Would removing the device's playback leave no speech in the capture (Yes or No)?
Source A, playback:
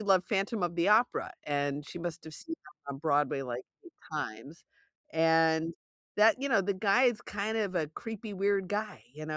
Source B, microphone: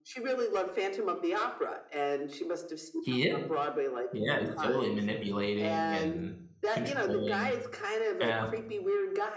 No